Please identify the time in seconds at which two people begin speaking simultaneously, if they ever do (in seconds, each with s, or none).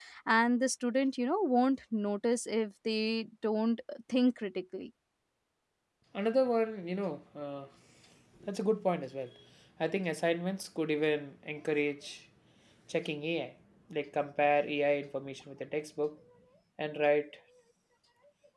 none